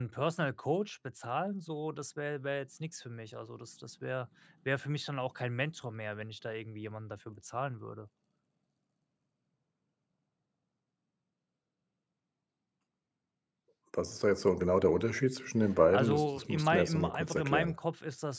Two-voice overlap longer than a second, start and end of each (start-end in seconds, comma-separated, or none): 15.9-17.8